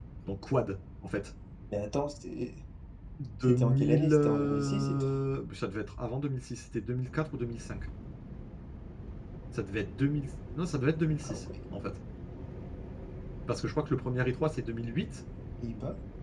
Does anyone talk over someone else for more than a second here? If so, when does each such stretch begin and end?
3.4-5.1

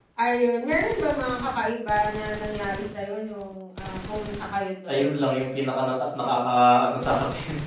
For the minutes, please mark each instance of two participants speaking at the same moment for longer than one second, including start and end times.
none

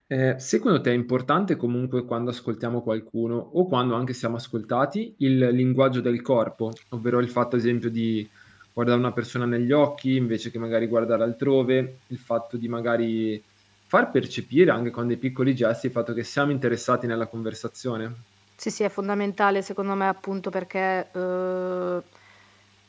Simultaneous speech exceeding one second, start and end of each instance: none

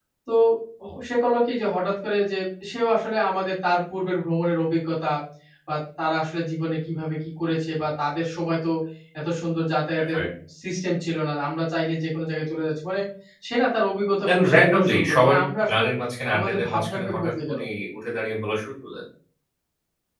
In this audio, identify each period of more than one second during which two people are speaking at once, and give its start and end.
14.2-15.8, 16.3-17.6

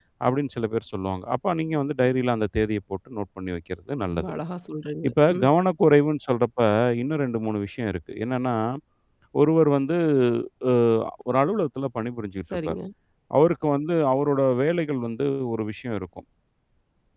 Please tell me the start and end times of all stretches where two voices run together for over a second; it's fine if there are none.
none

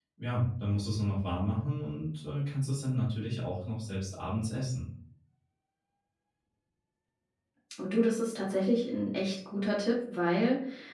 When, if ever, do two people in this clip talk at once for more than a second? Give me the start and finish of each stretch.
none

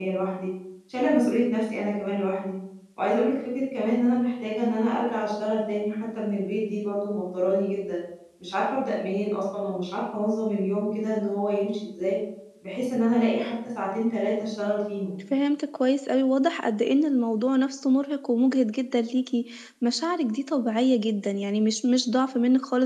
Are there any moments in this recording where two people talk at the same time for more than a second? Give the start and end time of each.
none

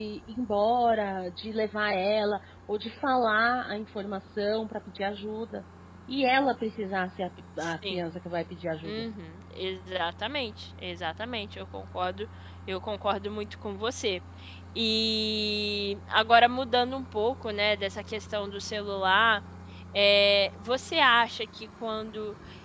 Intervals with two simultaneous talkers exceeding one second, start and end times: none

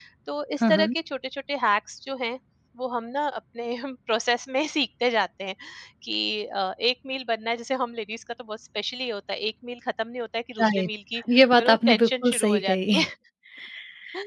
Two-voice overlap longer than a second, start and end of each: 11.6-12.9

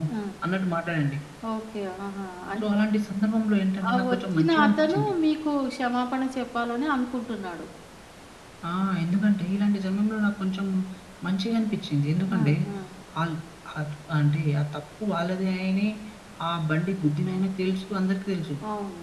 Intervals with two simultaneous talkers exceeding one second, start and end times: 3.9-5.1

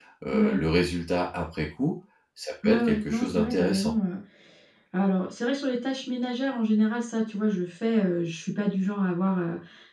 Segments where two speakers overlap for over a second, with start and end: 2.6-3.9

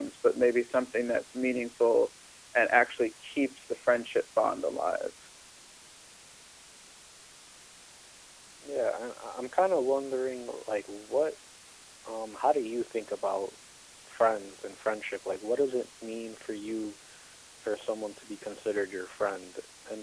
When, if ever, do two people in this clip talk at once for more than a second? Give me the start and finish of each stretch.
none

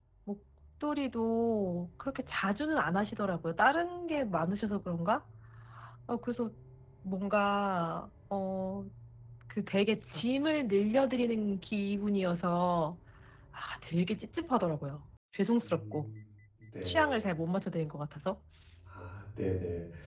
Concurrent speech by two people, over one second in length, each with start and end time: none

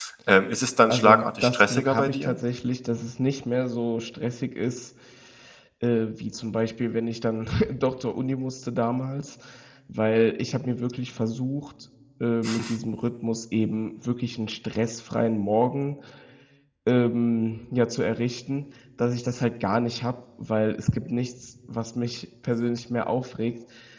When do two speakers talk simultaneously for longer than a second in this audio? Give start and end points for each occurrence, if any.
0.9-2.4

